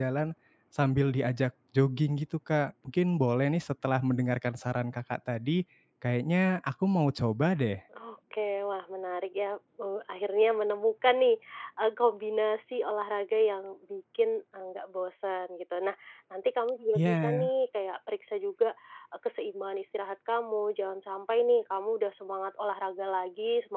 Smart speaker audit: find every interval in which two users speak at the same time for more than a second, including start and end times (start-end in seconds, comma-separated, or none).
none